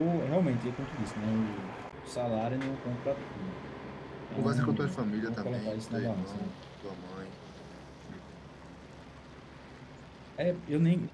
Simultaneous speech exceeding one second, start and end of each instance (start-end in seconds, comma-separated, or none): 4.3-6.5